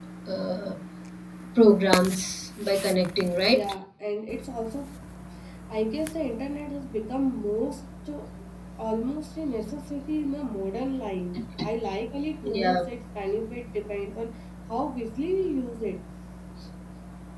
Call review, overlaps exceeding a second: none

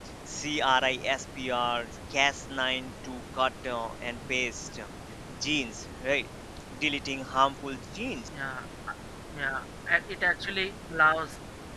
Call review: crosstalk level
none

